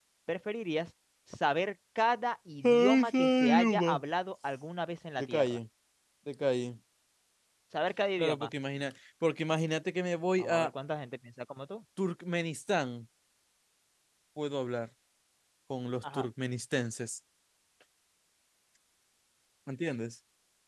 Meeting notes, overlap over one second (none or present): present